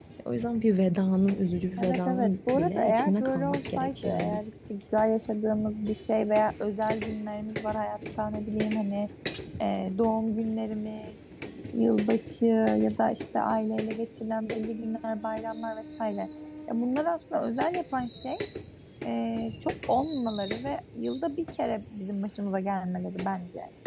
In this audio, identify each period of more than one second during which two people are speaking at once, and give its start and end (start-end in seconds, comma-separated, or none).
1.8-4.4